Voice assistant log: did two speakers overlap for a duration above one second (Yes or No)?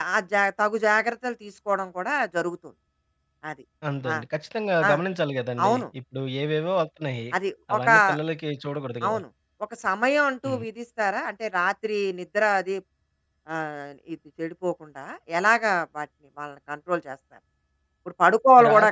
No